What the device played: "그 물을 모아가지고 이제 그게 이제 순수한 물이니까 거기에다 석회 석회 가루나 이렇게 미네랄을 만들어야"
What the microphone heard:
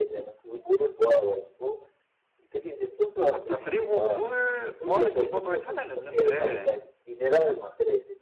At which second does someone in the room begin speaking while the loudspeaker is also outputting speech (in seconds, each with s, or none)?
3.2 s